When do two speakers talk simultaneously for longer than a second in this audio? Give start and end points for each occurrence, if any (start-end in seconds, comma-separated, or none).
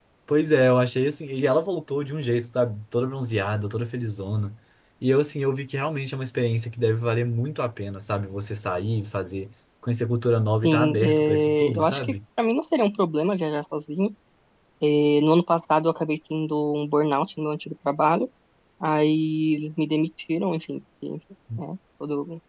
10.6-12.1